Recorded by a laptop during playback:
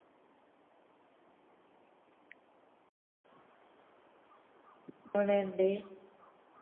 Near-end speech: present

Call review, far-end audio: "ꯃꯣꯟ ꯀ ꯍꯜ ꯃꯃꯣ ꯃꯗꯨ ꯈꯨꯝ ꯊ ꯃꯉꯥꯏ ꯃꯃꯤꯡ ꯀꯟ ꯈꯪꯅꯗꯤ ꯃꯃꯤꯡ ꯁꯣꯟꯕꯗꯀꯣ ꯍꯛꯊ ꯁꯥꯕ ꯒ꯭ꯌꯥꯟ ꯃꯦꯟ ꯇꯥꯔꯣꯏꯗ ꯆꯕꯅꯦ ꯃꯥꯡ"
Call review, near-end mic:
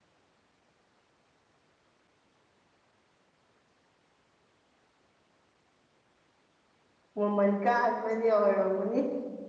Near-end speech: present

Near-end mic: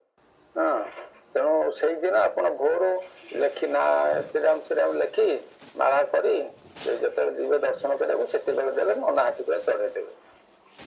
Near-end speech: none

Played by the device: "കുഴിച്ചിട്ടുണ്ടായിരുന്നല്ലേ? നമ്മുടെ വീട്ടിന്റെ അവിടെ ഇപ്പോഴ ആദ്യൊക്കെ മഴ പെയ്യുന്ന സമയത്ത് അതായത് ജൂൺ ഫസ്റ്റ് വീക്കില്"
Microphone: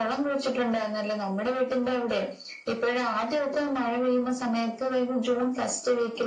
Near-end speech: none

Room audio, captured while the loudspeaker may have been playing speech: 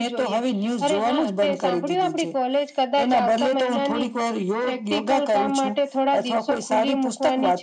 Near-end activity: none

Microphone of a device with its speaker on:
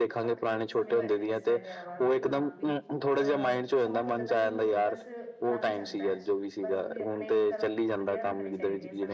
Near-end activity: present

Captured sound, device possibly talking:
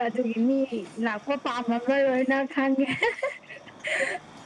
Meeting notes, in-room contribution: none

